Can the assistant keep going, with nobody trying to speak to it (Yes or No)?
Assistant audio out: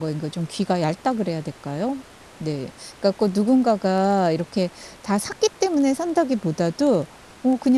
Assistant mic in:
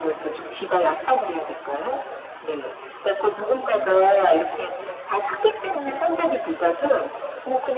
Yes